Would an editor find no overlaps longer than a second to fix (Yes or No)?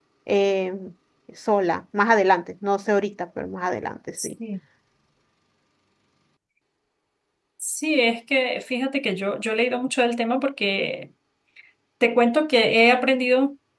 Yes